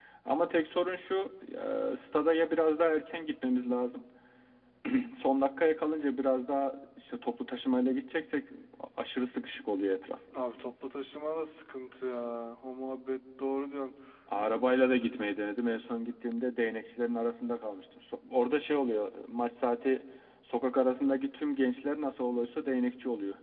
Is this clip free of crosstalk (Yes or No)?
Yes